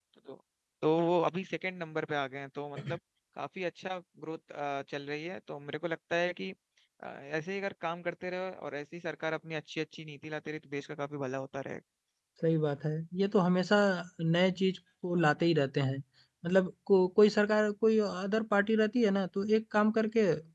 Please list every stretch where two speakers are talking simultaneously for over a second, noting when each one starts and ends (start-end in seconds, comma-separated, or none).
none